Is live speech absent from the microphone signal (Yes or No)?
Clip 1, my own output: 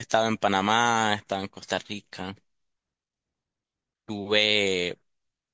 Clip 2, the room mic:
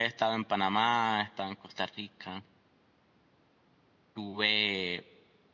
Yes